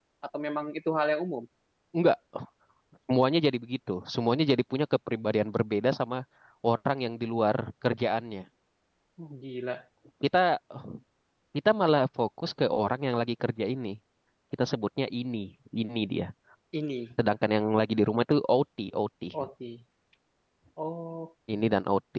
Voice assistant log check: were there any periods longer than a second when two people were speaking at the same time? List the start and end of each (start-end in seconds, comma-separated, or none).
none